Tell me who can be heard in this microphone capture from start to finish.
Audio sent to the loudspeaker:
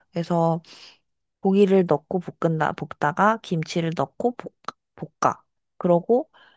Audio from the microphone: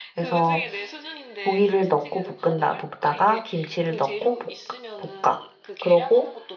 both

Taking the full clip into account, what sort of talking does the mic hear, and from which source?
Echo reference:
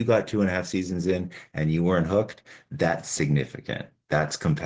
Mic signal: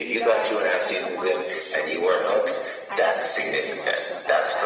both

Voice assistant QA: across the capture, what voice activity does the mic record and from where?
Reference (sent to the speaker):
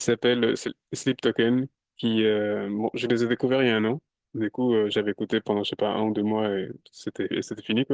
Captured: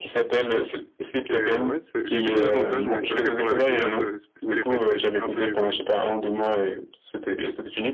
both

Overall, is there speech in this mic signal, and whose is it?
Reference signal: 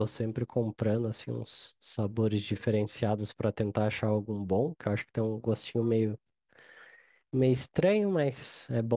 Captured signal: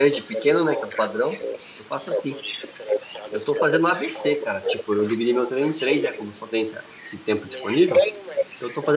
both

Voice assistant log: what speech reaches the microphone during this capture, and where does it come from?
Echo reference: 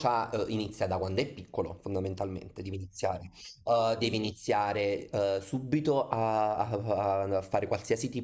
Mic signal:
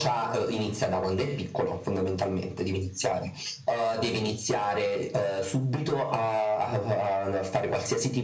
echo only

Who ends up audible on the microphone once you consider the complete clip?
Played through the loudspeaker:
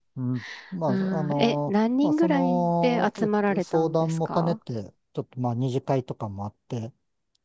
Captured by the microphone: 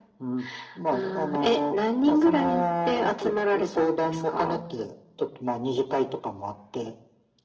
echo only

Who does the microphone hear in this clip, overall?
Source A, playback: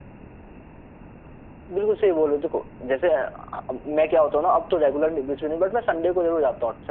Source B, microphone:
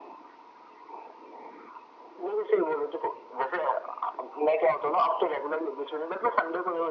echo only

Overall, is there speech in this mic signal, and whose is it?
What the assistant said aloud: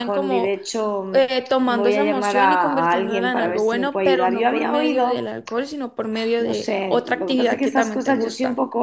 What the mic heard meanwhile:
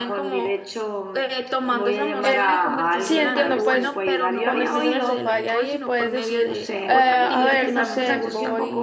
both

